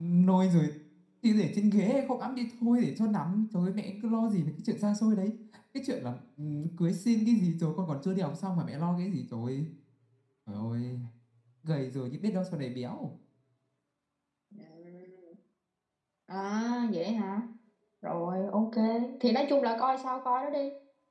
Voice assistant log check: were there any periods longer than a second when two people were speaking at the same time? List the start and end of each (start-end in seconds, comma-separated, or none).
none